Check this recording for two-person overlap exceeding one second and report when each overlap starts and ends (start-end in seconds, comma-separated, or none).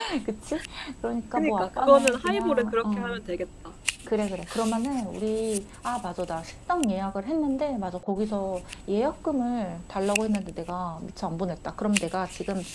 1.4-3.2